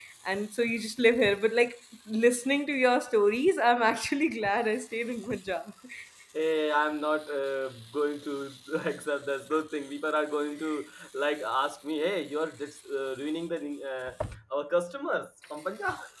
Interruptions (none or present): none